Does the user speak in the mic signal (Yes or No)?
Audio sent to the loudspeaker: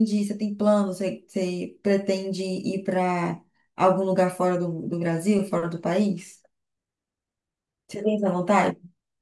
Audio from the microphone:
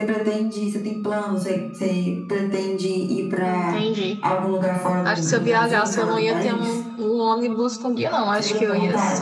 Yes